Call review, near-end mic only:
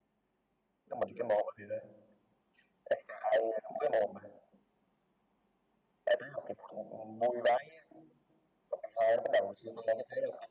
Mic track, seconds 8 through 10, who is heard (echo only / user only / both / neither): echo only